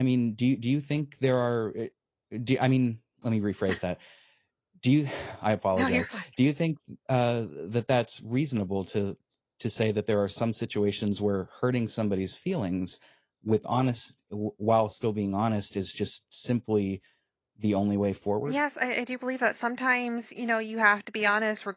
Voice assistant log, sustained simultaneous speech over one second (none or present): none